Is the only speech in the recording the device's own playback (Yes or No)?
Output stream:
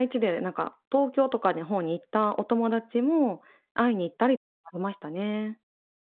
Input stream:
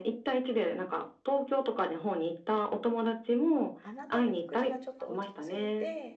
No